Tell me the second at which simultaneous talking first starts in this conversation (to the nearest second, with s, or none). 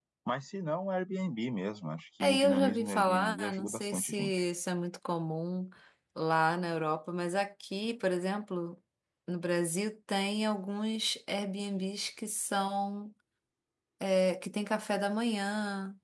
2 s